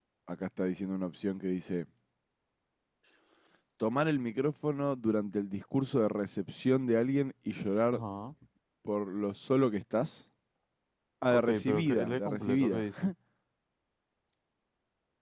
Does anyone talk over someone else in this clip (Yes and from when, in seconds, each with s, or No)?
Yes, from 11.3 s